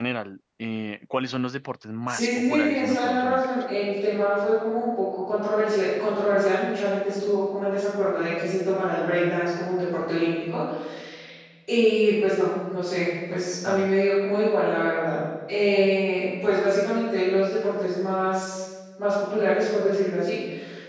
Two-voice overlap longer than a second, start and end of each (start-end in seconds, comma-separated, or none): 2.1-3.5